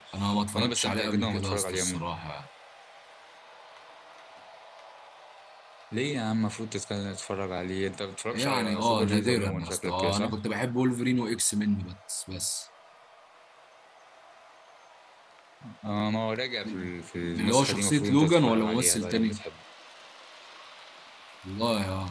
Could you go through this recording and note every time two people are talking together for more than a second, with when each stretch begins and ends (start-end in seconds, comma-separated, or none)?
0.6-2.0, 8.3-10.3, 17.4-19.4